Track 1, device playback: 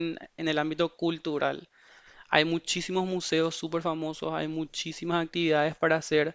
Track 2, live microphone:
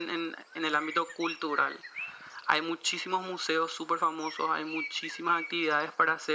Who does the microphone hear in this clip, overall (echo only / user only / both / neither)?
echo only